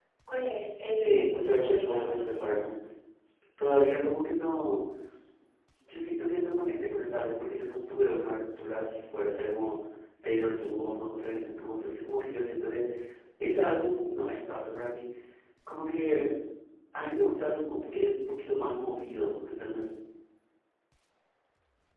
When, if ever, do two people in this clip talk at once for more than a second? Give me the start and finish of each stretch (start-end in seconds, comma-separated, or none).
1.0-2.7